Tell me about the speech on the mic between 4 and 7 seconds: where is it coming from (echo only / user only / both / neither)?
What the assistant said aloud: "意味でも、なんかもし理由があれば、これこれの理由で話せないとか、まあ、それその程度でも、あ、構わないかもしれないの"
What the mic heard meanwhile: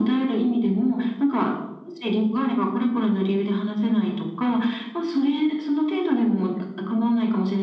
echo only